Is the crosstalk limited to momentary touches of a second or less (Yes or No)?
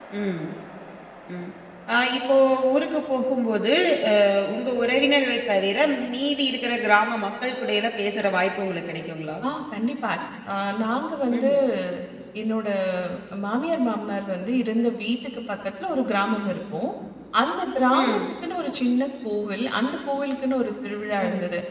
Yes